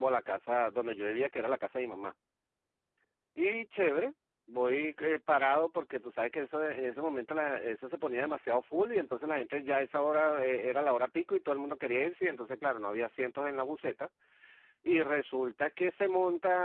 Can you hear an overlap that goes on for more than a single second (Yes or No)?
No